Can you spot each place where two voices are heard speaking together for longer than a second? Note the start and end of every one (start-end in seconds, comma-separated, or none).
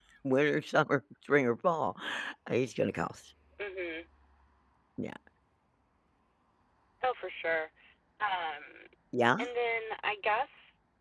none